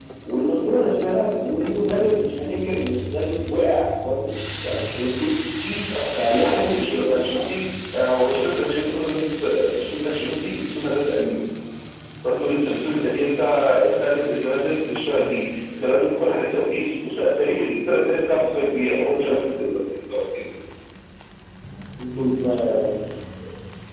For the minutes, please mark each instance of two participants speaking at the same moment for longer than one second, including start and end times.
6.1-7.4

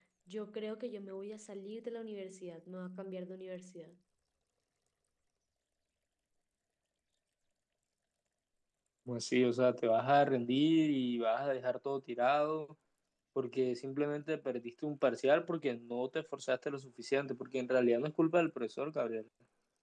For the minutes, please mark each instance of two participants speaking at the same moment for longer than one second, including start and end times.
none

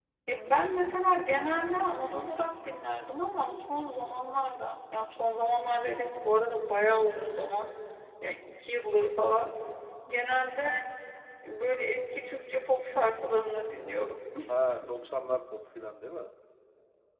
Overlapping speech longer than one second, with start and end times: none

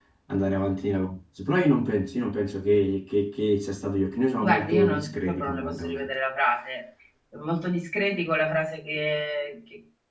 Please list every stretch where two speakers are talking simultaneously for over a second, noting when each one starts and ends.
4.4-6.1

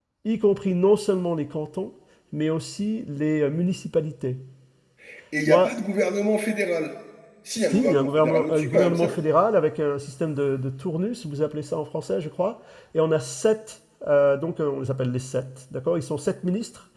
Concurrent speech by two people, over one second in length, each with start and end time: 7.6-9.2

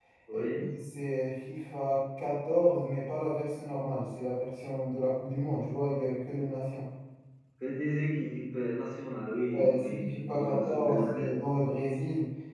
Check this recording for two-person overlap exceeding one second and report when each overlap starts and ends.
9.5-11.3

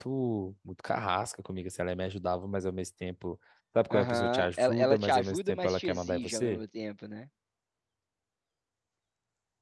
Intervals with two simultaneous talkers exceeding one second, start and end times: 3.9-6.6

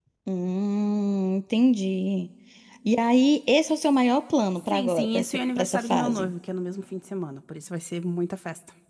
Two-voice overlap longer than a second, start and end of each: 4.6-6.3

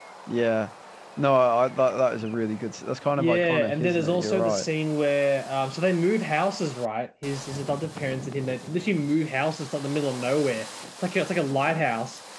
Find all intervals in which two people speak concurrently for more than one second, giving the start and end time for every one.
3.2-4.7

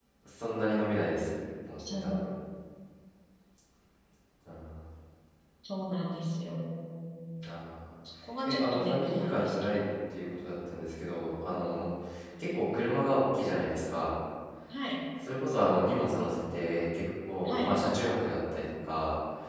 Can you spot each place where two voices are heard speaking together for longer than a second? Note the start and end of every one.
8.5-9.9

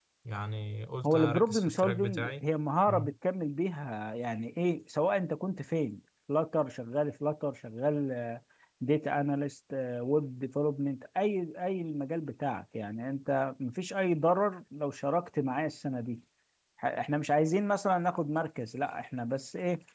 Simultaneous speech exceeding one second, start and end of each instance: 1.1-2.4

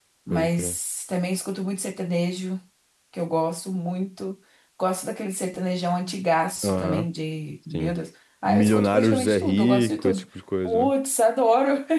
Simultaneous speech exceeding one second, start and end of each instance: 8.4-10.2

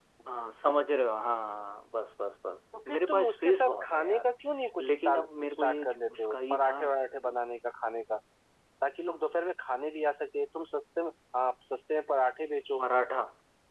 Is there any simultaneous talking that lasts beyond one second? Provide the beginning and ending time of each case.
2.9-4.3, 4.8-6.8

